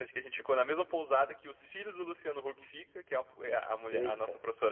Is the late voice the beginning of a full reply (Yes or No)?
No